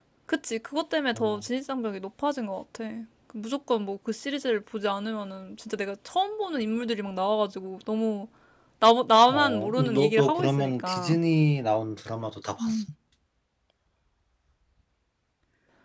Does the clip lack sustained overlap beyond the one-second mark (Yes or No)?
No